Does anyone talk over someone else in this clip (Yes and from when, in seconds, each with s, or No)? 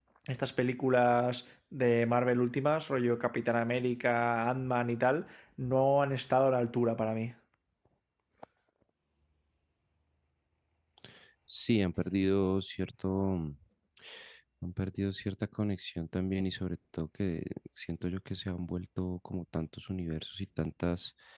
No